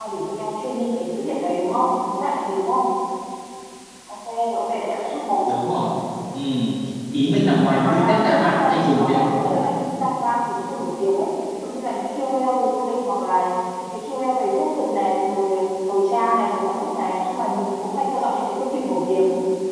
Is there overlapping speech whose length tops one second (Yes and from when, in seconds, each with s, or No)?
Yes, from 7.8 s